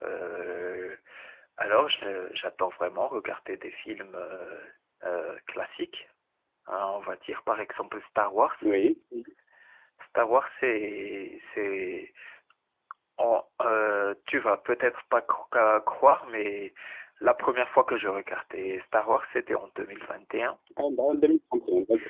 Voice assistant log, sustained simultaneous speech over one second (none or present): none